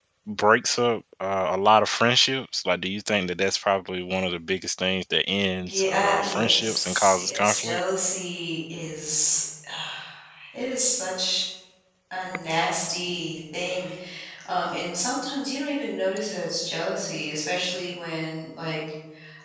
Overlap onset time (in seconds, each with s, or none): 5.6 s